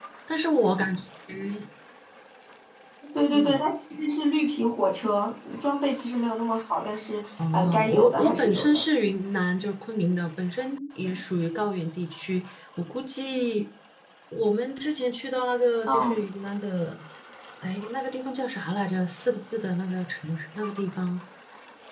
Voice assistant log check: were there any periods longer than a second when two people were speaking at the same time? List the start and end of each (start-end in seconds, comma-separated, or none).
7.5-8.8